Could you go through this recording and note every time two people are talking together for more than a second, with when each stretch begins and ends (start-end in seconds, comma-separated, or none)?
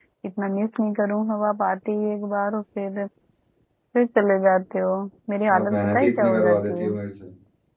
5.6-7.0